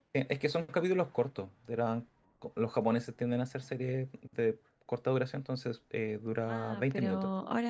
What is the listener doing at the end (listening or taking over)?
taking over